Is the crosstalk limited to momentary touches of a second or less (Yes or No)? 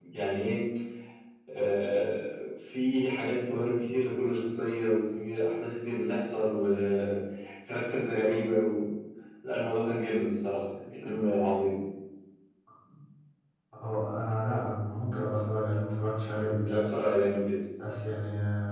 Yes